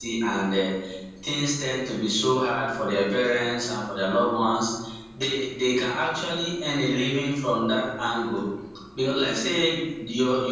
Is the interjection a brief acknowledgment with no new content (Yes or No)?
Yes